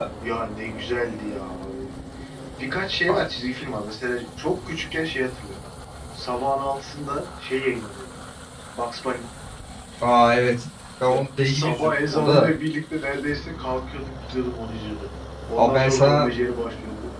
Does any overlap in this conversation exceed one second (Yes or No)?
Yes